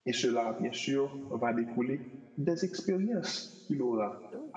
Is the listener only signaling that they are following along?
Yes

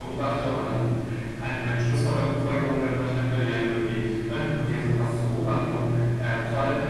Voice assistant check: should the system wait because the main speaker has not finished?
Yes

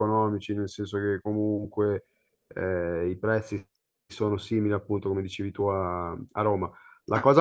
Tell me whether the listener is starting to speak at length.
No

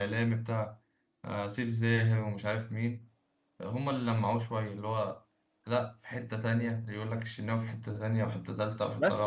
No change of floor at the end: No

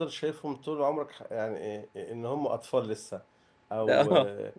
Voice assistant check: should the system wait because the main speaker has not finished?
Yes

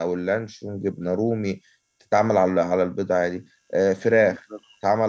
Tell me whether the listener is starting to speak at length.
No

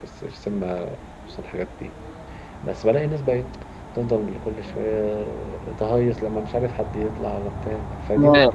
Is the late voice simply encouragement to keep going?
No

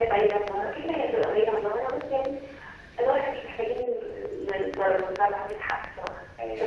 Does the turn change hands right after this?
Yes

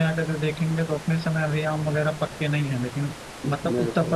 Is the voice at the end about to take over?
No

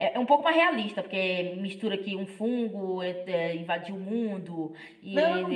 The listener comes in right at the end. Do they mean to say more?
Yes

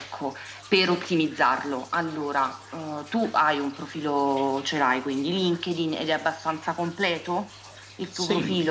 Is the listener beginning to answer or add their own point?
Yes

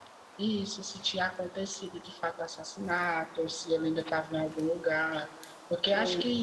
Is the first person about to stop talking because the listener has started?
No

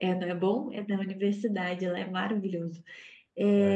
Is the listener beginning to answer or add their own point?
No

